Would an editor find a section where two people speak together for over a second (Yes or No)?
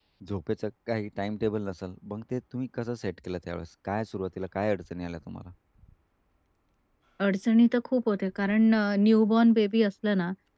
No